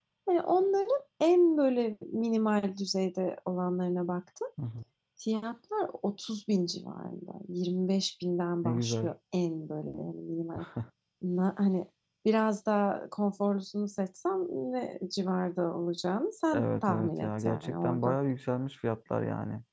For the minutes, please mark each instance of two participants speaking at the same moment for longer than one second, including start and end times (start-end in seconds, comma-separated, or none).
16.5-18.2